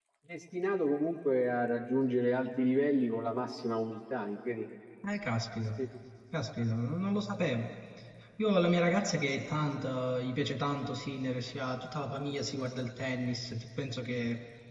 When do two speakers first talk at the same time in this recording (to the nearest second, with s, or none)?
none